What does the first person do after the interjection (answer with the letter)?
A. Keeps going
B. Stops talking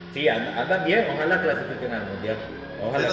B